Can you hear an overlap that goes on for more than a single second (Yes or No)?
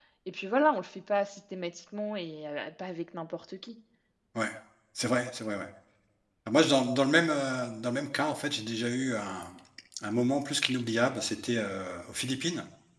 No